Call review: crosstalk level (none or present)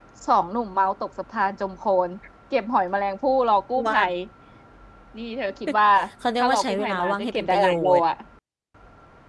present